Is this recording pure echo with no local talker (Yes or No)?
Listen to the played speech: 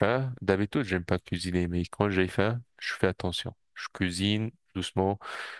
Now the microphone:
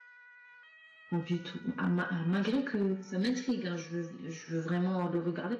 No